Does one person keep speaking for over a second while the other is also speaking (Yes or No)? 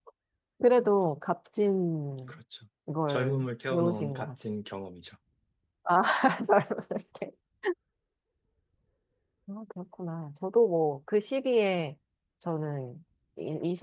Yes